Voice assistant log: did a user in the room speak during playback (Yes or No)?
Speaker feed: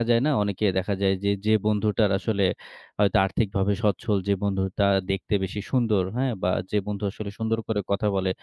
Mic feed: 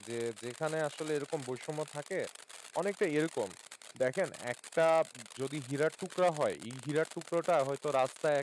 Yes